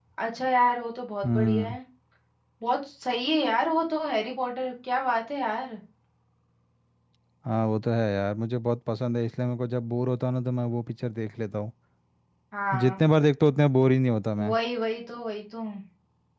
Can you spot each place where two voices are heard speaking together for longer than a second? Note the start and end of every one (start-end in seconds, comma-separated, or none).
none